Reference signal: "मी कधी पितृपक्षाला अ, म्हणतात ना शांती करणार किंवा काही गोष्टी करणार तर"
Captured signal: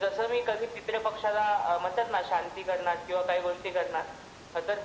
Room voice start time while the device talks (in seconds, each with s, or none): none